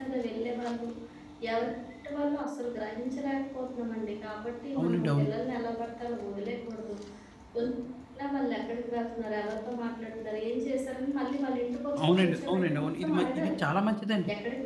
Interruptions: present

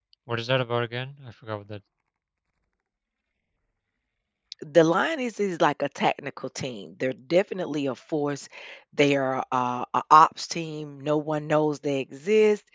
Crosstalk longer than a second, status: none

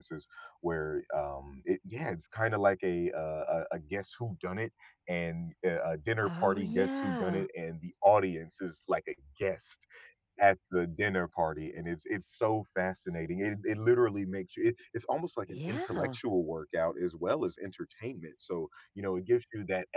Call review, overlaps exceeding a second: present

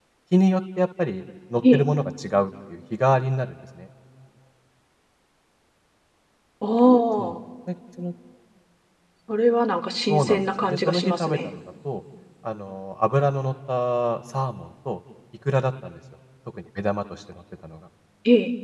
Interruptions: present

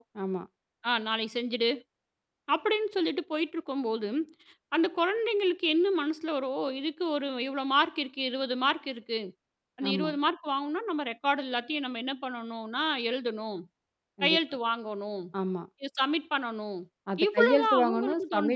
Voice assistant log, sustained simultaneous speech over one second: present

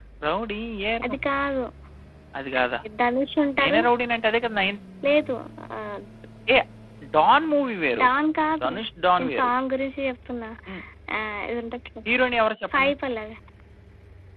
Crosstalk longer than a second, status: none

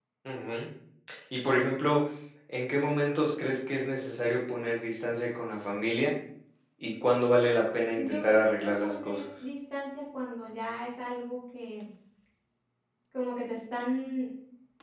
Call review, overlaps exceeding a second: present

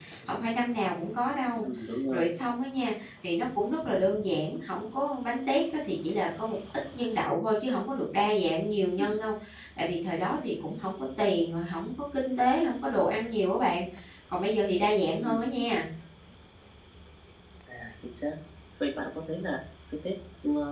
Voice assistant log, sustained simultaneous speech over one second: none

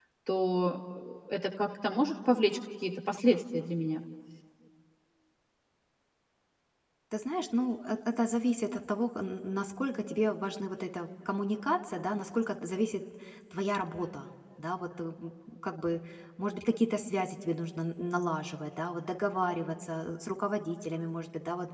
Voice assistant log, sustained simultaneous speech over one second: none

